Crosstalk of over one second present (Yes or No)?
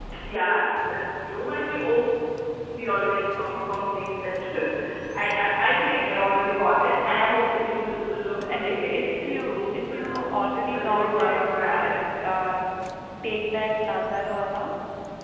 Yes